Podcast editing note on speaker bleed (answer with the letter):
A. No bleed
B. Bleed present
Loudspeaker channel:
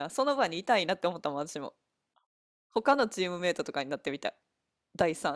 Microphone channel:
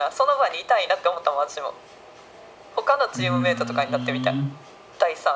B